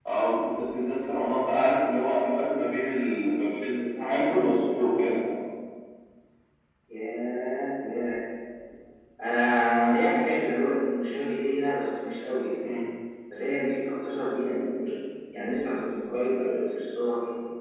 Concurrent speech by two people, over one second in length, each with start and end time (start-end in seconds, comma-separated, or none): 3.8-5.2